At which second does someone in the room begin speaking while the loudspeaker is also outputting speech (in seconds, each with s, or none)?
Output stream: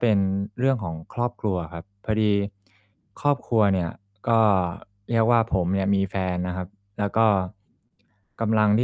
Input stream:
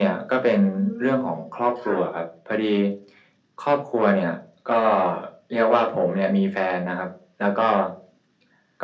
0.7 s